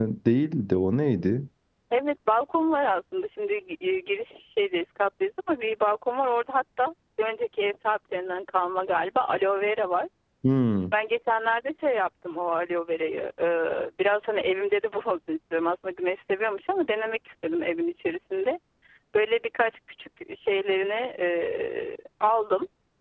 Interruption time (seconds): none

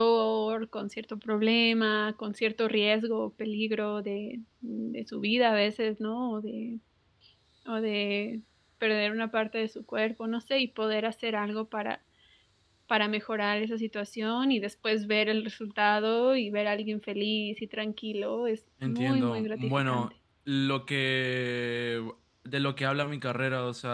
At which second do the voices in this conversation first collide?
19 s

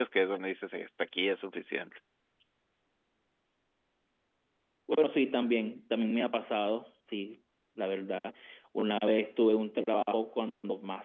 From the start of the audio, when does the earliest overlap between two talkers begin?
none

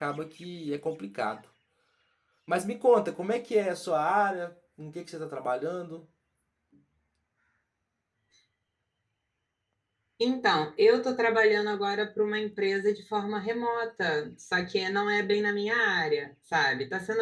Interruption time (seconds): none

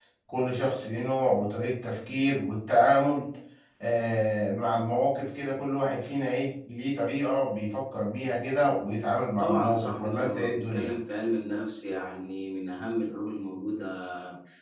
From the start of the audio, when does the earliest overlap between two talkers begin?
9 s

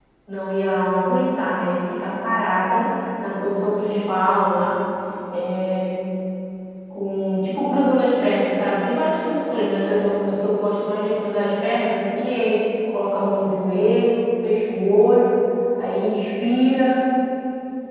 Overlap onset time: none

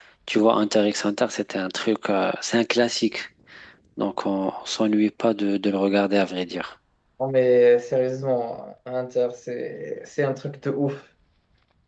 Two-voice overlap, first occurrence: none

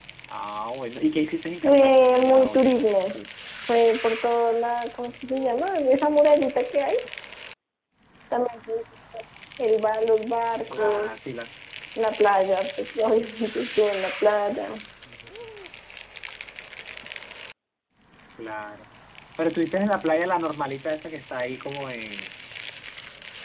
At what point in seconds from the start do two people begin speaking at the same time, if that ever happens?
2 s

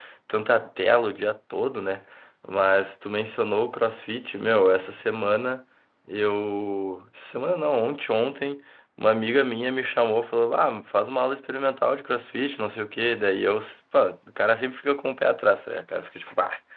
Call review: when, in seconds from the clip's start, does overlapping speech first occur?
none

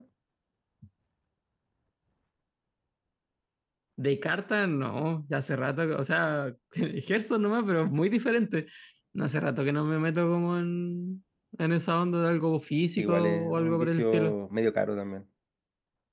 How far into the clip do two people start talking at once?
13 s

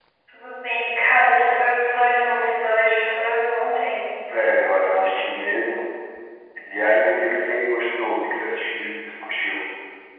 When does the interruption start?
none

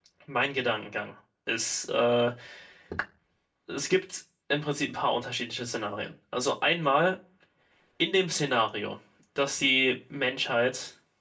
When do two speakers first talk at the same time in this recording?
none

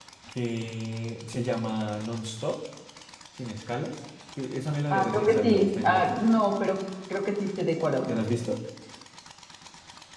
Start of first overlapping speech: 5 s

